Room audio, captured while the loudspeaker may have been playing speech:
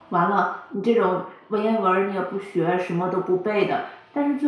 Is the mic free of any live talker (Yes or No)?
No